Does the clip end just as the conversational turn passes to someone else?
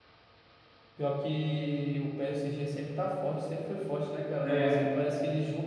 No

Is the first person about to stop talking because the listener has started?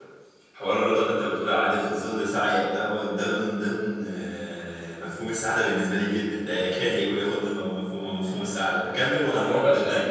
Yes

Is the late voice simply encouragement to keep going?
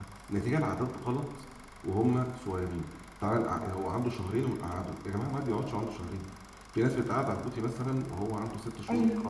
Yes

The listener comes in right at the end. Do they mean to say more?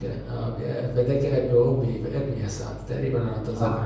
Yes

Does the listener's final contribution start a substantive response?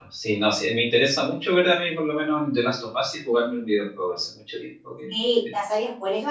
Yes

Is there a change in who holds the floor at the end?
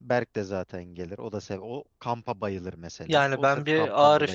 Yes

